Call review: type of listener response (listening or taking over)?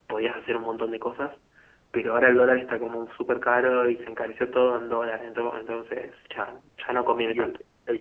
taking over